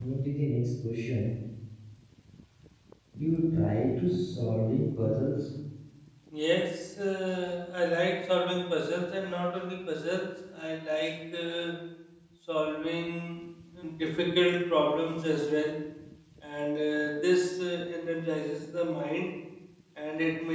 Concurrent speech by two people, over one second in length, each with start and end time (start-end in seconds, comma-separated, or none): none